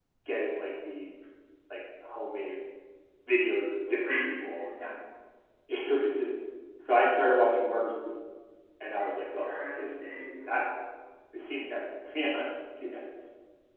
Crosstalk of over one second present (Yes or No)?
Yes